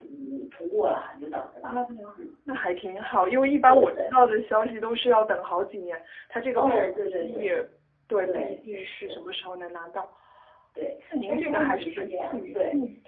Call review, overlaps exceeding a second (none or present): present